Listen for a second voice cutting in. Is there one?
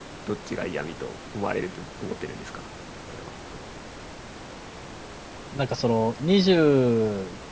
No

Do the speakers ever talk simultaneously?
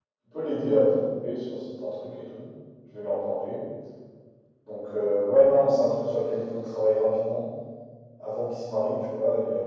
No

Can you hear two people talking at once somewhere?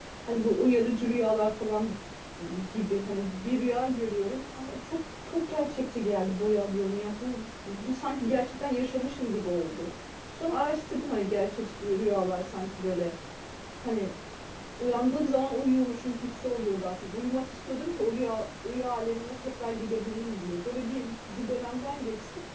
No

